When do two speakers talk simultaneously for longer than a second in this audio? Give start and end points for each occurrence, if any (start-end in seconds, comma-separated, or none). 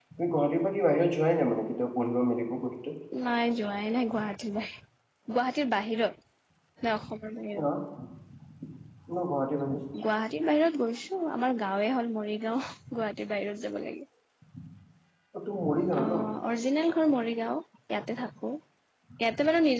none